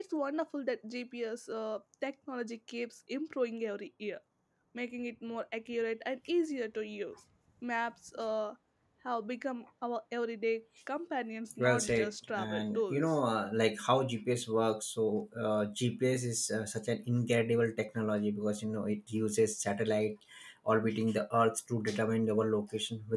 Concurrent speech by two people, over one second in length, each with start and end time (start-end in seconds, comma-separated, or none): 11.6-13.0